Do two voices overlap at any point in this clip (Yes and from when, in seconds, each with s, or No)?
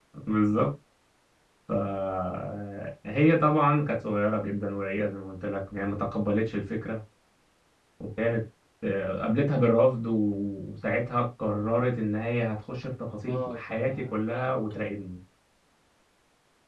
Yes, from 13.2 s